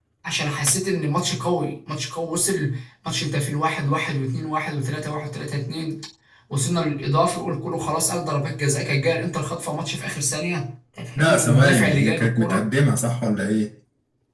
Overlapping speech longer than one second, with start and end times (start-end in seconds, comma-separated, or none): 11.2-12.6